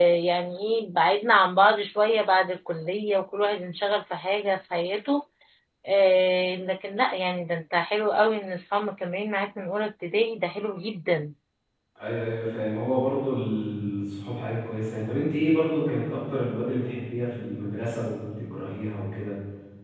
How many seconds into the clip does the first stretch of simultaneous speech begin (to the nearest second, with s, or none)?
none